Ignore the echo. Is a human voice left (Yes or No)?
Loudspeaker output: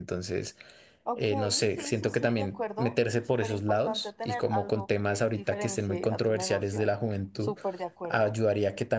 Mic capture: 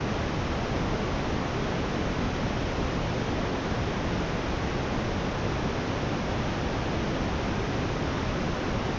No